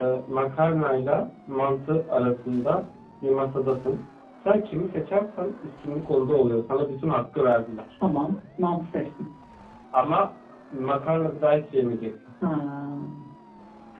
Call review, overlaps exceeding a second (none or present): none